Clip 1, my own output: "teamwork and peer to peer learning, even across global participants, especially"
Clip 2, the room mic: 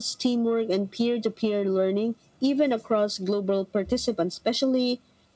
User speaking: No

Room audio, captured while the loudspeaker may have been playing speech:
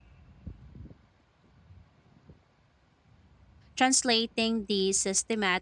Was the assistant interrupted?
Yes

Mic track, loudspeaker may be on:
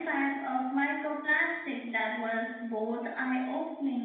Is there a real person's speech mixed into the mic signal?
No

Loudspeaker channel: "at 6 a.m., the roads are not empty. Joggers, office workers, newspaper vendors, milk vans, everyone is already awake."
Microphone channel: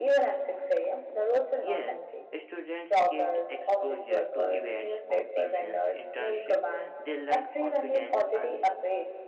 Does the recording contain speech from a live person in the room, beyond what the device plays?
Yes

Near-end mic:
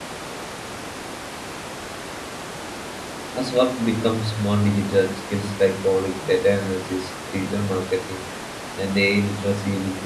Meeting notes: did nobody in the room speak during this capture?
No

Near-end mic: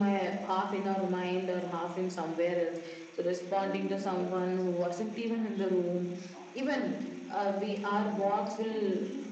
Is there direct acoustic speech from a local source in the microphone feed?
Yes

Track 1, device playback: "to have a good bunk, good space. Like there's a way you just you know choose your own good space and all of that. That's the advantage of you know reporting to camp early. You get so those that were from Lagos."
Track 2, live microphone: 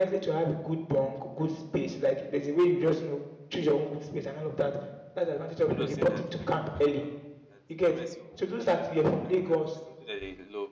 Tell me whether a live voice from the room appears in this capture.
Yes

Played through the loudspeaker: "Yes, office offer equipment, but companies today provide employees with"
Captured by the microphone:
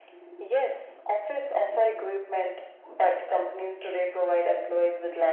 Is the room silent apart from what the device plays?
Yes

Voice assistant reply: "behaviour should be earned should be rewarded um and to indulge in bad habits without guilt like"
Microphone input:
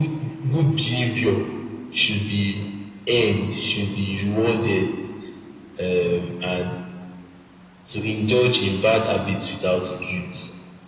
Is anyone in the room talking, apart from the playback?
No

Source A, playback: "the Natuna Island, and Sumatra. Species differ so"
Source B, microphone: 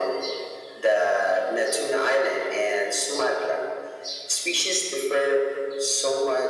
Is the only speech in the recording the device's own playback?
Yes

